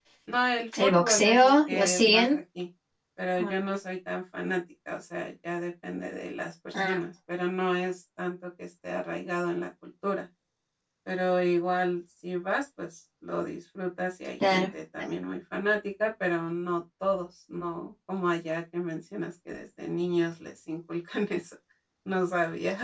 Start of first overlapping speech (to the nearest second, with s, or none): 1 s